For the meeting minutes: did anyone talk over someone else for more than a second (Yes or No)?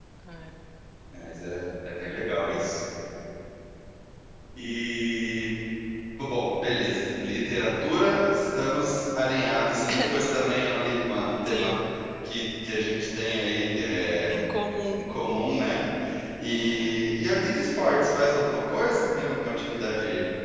No